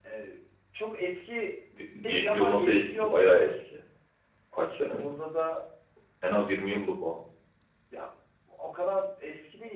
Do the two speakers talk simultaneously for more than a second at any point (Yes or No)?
Yes